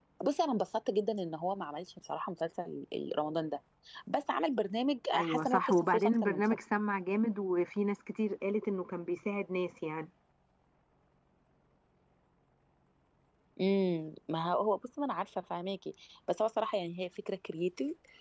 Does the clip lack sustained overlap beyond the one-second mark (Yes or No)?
No